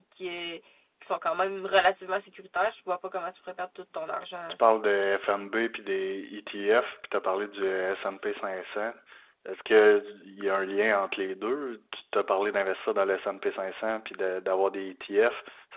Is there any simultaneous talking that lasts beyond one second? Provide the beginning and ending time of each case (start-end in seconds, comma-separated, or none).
none